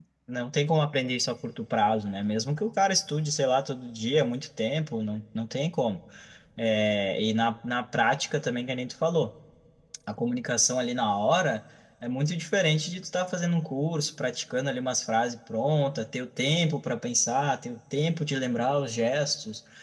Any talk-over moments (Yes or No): No